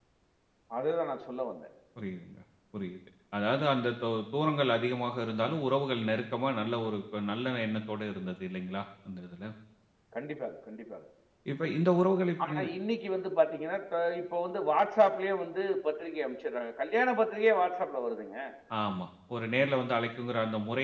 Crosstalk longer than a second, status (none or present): none